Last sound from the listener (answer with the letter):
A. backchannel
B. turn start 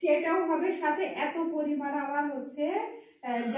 A